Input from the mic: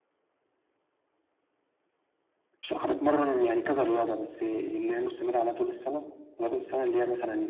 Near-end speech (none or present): none